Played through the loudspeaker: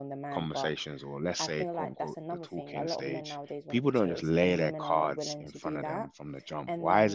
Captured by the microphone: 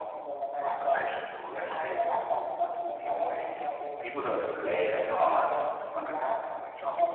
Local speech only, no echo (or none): none